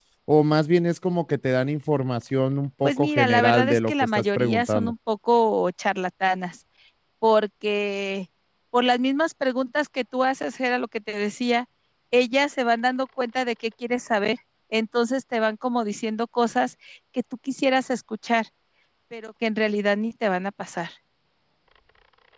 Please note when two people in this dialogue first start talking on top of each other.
2.8 s

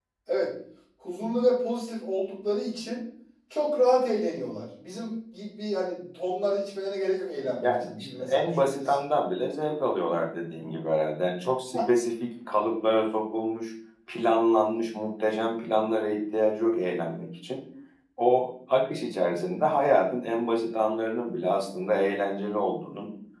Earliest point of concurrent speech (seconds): 7.4 s

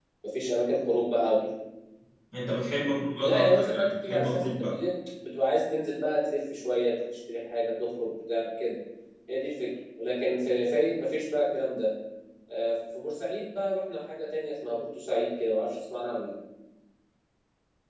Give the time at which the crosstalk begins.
3.2 s

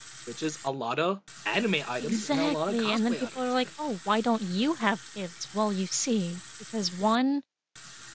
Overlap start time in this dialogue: 2.0 s

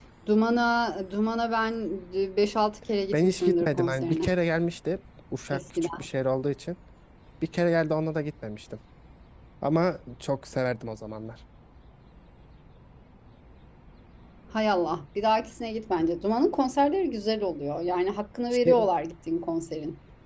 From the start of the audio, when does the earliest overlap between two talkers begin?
3.1 s

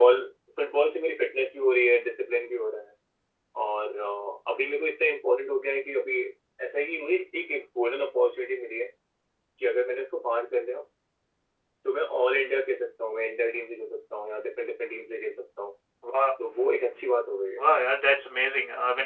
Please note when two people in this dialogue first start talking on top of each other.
none

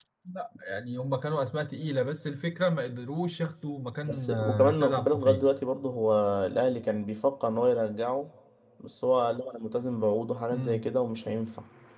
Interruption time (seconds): 4.1 s

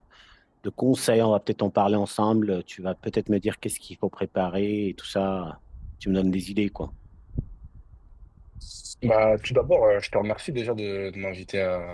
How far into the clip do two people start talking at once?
none

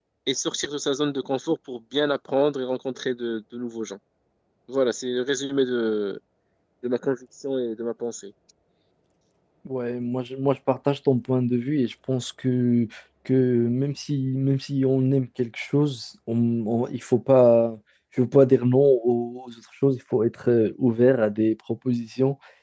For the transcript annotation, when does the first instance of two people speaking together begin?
none

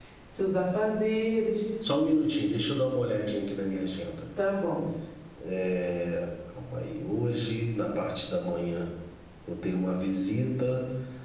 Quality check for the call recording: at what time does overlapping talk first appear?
none

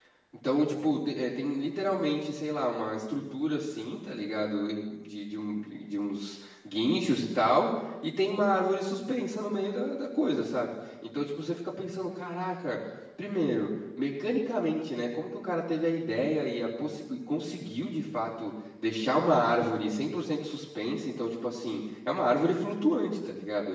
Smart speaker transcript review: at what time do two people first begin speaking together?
none

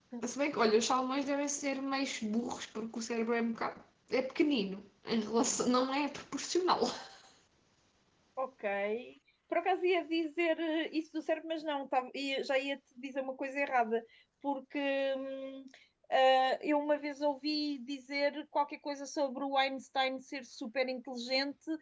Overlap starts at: none

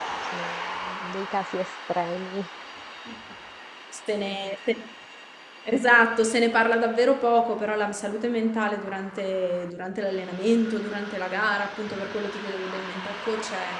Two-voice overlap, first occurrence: none

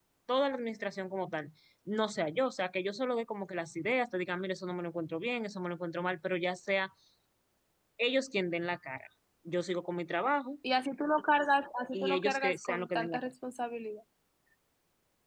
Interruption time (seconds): 11.9 s

